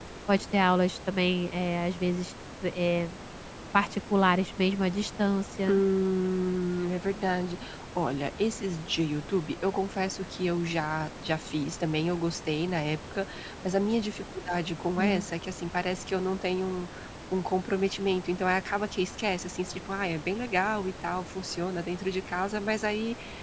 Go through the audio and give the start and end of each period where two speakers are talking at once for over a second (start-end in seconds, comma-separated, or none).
none